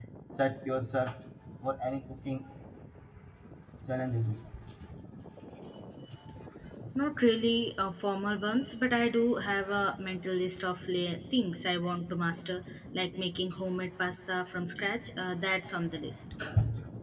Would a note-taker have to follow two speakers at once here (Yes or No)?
No